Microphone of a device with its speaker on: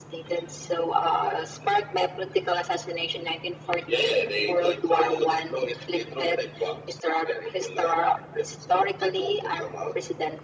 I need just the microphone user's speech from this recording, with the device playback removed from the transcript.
none

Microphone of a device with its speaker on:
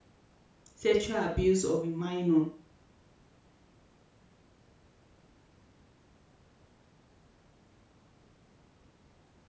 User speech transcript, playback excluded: sexual abuse of a minor

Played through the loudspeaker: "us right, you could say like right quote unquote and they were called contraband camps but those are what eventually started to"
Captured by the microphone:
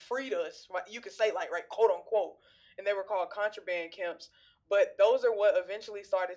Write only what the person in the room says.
none

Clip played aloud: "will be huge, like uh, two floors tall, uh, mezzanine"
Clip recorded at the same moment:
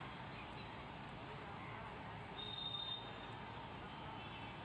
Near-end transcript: none

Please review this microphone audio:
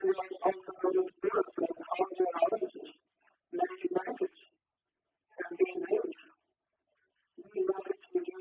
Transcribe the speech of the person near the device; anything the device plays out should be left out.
none

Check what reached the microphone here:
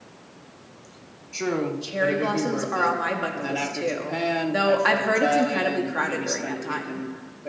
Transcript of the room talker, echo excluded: cherry blossoms are on my bucket list too, though I've heard it's incredibly crowded during that time.

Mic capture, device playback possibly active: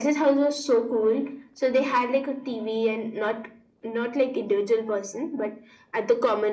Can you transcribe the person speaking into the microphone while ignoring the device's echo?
none

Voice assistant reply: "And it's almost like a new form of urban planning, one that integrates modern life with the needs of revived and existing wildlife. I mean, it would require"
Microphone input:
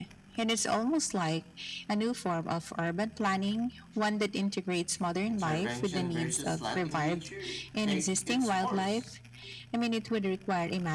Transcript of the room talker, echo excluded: Intervention versus letting nature take its course.

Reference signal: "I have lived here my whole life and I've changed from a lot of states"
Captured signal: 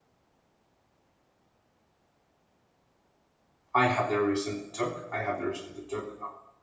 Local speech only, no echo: I have the reason to talk. I have the reason to talk

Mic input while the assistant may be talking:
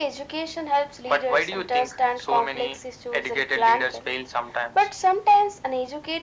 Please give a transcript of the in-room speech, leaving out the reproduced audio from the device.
none

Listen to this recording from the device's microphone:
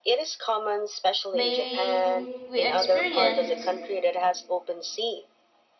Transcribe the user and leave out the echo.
may we experience

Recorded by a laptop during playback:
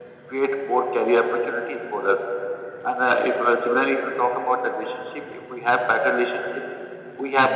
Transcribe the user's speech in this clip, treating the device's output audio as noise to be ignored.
none

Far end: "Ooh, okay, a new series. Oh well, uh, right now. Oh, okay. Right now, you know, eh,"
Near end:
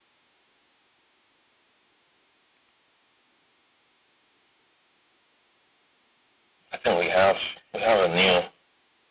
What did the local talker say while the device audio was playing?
I think we have we have a new.

